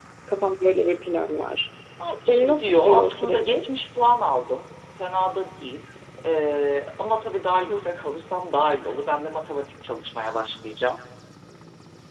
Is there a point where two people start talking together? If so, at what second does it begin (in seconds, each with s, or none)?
2.3 s